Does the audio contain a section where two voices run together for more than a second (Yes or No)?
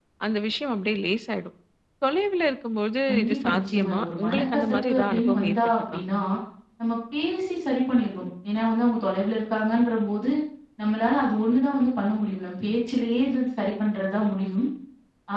Yes